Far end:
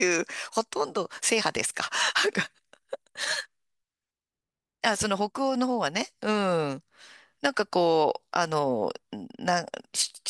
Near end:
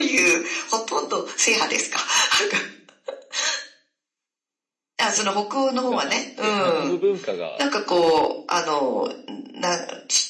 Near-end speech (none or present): present